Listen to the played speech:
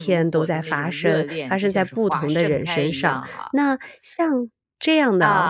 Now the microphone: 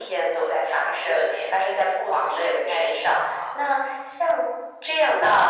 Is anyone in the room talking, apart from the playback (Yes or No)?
No